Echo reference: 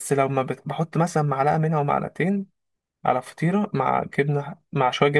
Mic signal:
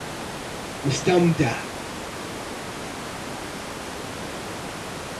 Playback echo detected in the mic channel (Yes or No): No